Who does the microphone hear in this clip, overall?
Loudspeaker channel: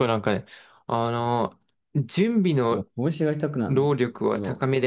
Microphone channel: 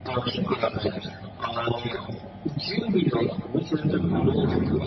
both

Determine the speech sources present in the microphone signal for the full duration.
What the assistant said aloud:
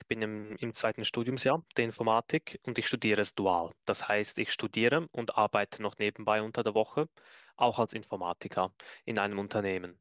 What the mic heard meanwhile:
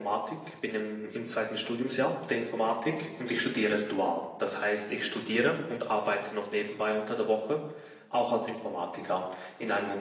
echo only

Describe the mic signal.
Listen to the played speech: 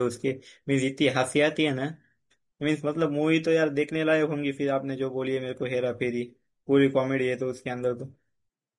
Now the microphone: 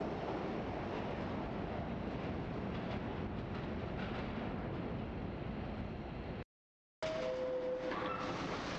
neither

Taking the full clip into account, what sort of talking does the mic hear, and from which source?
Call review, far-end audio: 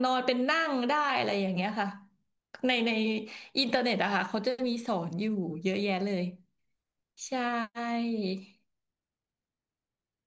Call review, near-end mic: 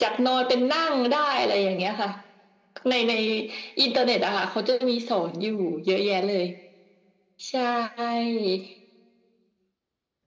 echo only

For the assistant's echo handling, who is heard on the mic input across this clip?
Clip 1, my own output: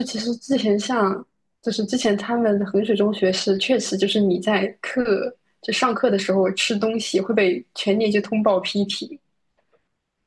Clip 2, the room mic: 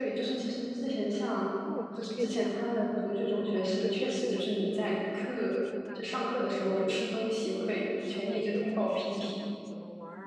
both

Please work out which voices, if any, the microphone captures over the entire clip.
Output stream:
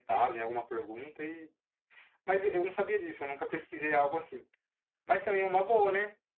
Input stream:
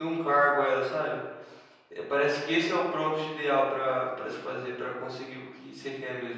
user only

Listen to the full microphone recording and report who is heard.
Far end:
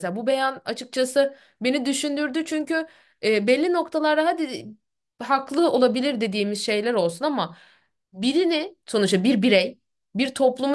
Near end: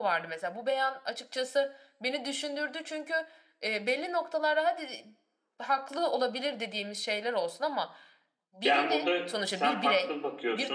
both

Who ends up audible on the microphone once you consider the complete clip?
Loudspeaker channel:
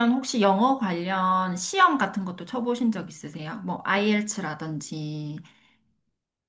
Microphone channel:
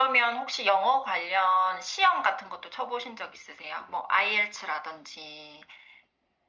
echo only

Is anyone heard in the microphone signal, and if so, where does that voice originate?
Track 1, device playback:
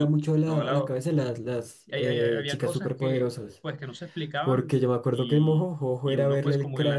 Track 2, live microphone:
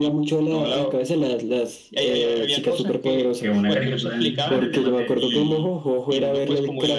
both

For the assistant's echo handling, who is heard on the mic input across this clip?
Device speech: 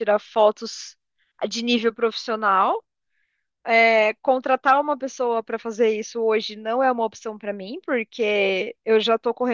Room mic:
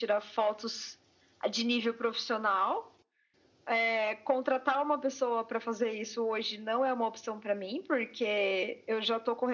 echo only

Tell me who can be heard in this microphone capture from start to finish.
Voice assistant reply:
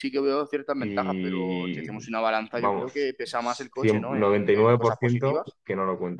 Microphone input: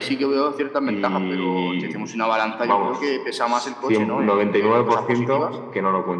echo only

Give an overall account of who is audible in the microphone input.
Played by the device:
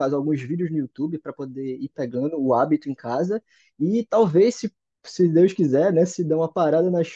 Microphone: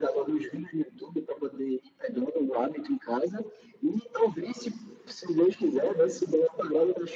echo only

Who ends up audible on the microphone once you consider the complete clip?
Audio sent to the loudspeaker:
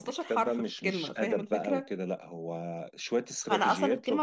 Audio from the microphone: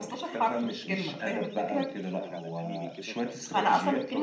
both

